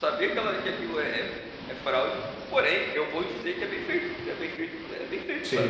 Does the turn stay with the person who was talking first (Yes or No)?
No